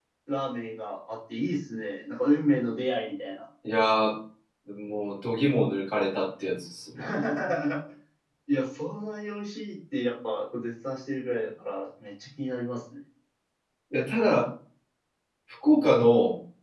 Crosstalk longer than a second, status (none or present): none